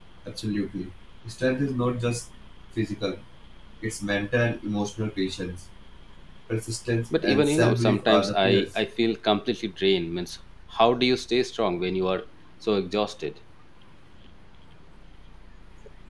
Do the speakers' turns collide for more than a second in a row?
Yes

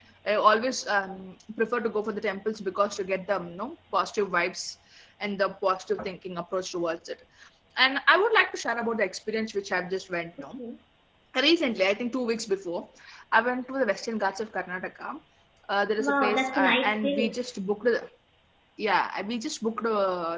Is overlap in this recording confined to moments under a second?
No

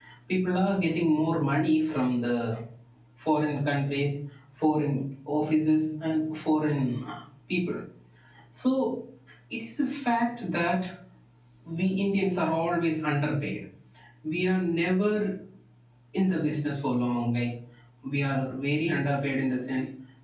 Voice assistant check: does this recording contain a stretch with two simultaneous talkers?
No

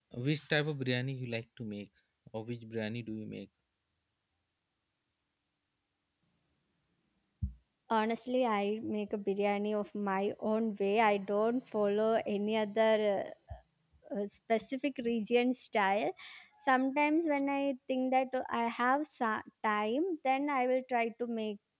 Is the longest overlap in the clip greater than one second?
No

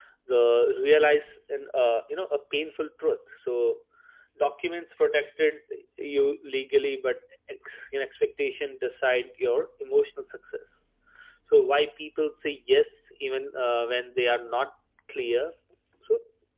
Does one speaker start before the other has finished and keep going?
No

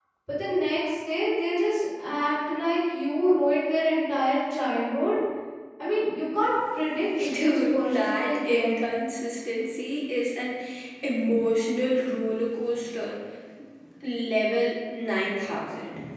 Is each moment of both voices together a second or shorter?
No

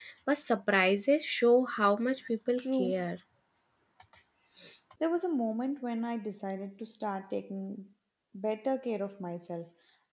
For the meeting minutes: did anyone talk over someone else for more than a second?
No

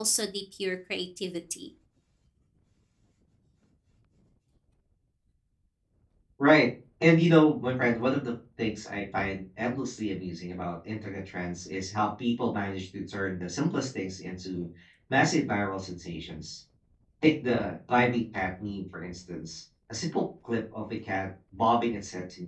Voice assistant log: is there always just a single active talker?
Yes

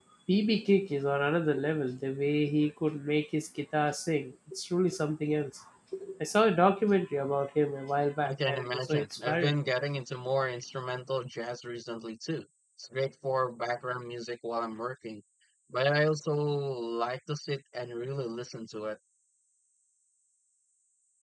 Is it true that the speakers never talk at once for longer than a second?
No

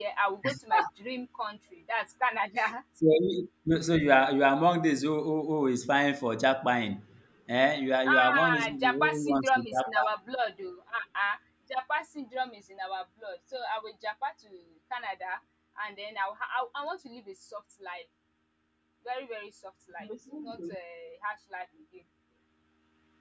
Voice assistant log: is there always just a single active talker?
No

